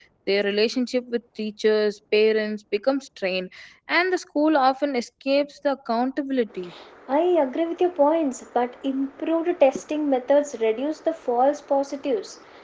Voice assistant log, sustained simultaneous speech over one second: none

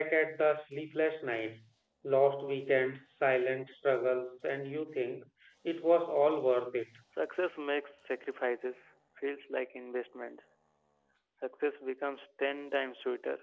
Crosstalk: none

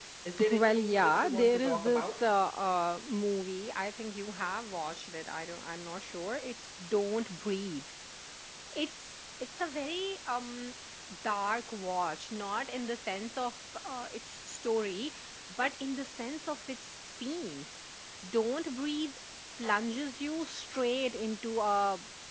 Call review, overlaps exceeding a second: present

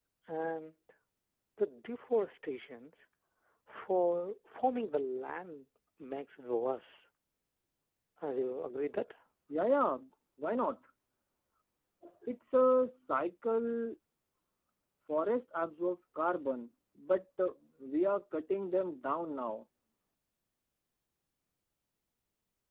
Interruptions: none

